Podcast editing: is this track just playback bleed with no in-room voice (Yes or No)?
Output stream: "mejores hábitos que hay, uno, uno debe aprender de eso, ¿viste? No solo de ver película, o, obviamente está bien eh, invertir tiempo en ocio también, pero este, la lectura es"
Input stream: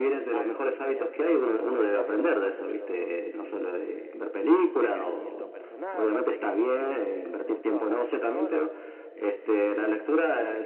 No